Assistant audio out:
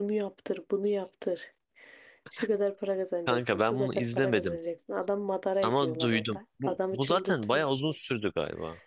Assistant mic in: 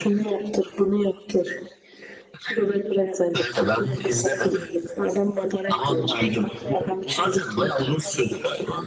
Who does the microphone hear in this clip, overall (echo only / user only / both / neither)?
both